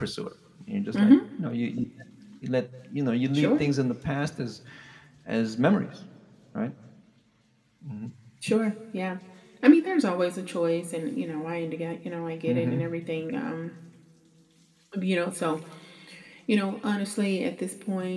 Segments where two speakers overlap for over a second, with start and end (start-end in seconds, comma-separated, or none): none